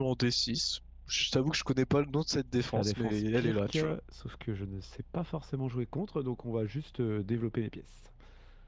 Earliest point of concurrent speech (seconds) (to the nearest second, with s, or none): 3 s